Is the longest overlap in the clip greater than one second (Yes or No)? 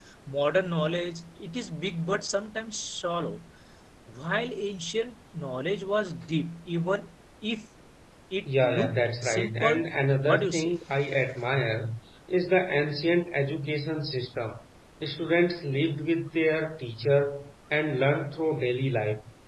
Yes